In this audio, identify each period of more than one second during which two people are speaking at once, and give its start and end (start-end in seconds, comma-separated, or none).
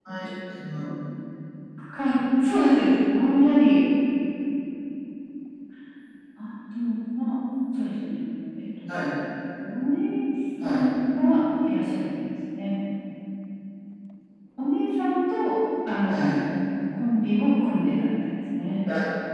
none